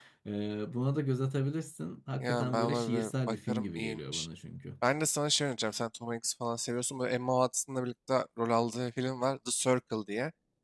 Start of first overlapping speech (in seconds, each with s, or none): 2.2 s